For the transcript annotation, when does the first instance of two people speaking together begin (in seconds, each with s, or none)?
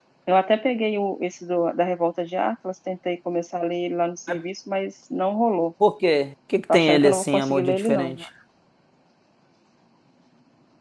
6.7 s